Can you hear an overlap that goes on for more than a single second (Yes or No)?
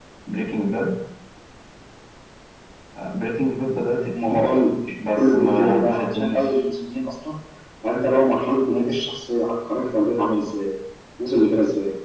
Yes